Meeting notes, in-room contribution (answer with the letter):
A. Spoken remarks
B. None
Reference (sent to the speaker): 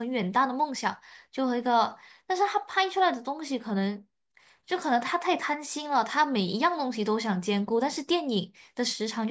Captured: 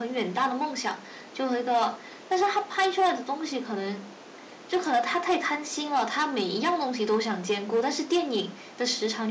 B